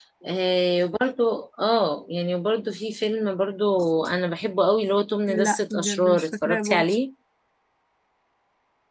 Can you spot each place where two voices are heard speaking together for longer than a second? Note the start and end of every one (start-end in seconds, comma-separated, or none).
5.3-6.9